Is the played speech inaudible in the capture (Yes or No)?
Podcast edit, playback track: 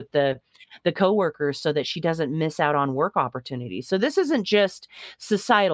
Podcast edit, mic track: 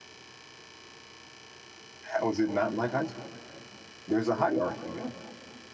Yes